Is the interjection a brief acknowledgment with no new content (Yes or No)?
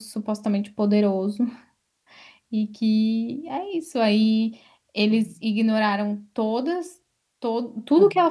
Yes